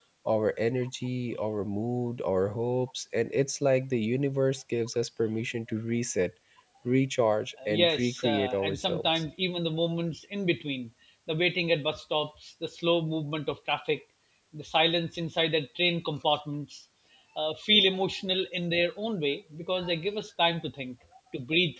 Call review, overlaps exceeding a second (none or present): present